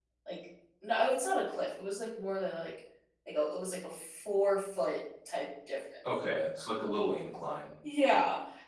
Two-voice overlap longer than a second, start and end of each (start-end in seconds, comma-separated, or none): none